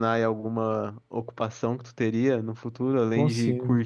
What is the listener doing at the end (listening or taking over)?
listening